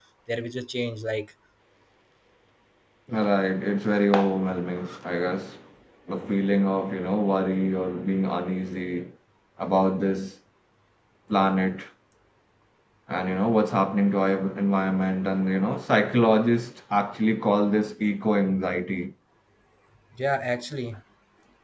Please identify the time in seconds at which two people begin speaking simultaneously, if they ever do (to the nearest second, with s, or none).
none